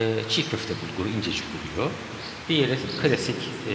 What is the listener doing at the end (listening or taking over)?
listening